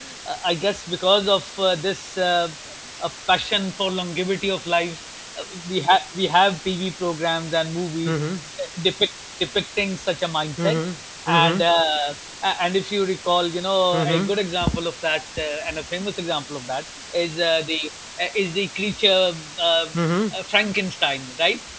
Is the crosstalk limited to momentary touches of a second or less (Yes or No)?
Yes